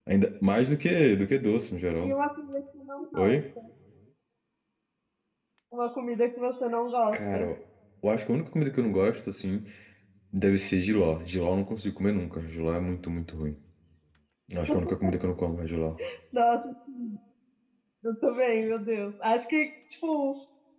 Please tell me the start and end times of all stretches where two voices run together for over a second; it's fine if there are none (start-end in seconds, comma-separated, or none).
none